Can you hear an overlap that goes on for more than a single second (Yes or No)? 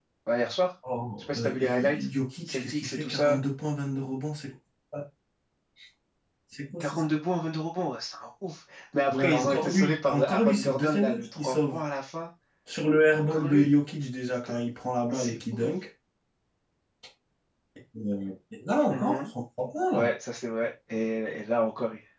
Yes